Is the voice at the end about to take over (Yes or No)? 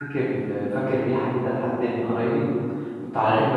No